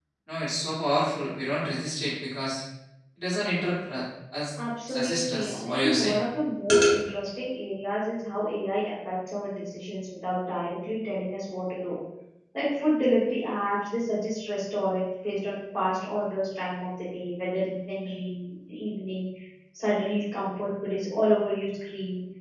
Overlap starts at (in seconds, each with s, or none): 4.9 s